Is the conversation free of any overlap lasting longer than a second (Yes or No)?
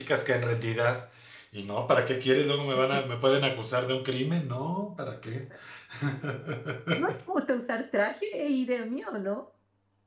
Yes